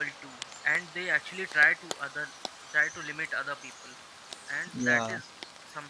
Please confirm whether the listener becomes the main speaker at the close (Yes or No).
No